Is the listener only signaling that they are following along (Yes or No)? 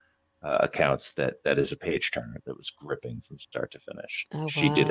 Yes